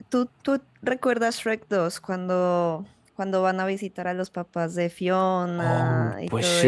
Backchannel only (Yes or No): No